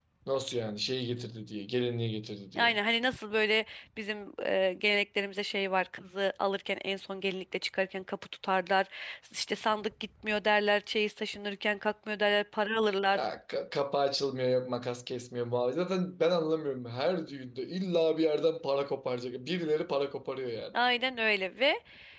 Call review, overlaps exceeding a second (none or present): none